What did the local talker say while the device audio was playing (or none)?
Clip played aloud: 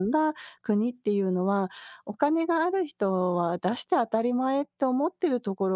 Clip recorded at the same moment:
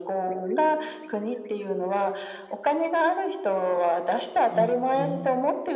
うんうん。